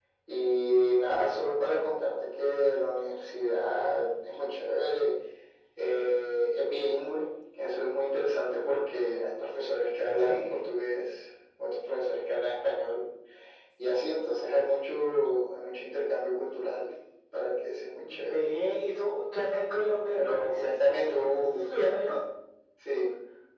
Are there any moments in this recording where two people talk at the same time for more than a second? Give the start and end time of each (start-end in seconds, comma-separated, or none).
20.1-21.7